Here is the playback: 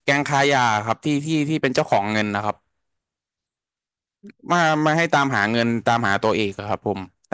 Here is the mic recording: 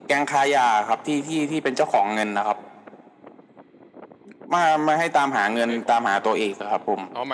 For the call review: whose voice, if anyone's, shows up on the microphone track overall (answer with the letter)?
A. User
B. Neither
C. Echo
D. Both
D